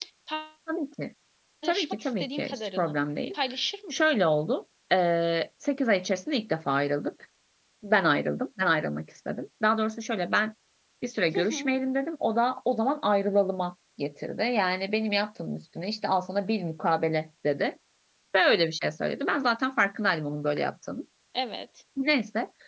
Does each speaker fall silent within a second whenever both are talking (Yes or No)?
No